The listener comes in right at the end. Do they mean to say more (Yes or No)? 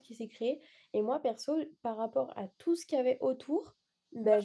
No